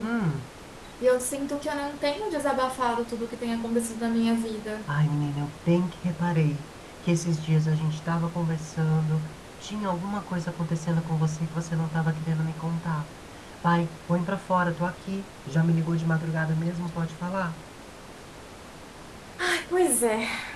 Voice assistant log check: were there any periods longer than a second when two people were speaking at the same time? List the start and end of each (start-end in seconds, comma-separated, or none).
none